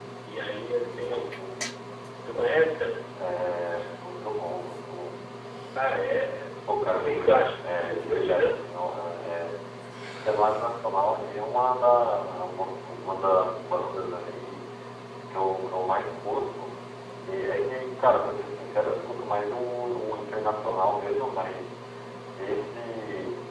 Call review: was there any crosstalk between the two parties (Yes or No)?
Yes